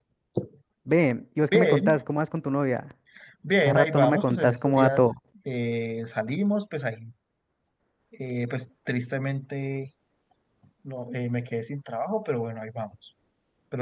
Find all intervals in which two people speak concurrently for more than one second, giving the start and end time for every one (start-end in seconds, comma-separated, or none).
3.6-5.0